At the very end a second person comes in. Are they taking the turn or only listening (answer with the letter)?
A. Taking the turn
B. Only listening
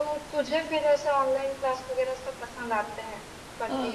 A